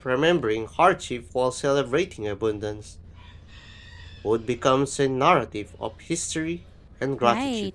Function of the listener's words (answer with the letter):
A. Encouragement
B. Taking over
B